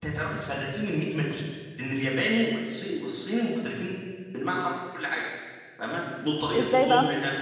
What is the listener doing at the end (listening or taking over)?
listening